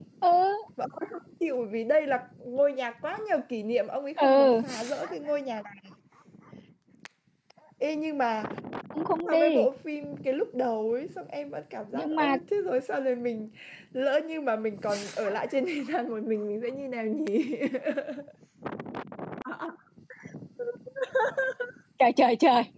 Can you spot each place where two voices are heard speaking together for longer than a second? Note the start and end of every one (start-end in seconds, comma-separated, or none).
none